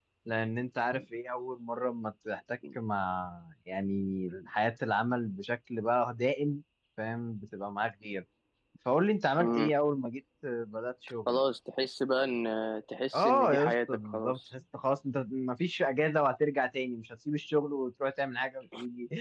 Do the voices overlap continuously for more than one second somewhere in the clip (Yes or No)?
Yes